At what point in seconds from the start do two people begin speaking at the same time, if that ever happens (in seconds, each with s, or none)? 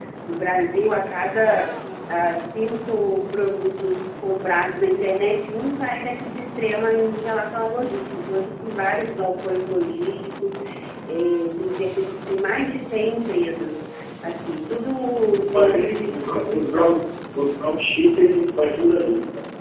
15.3 s